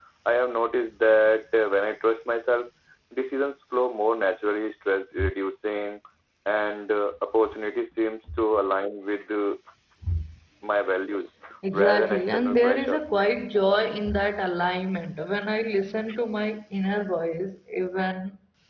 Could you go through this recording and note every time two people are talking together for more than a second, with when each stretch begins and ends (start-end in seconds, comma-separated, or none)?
11.7-13.1